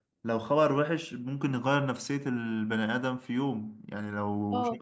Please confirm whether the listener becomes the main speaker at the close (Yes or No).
No